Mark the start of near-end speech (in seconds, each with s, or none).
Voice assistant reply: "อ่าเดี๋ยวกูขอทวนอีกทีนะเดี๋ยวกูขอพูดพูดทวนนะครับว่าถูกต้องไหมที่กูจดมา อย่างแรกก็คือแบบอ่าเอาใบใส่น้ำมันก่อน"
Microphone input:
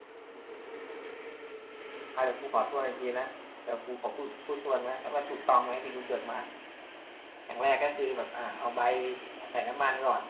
none